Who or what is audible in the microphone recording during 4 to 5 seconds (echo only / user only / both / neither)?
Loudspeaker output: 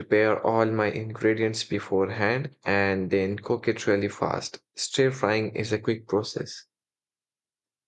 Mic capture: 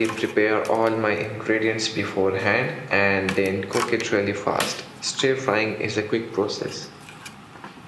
echo only